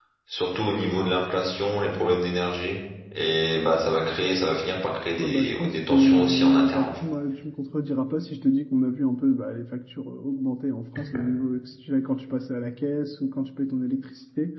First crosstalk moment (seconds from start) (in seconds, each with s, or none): 5.2 s